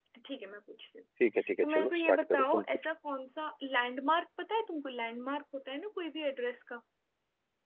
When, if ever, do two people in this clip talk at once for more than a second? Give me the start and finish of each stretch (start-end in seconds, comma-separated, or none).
1.6-2.9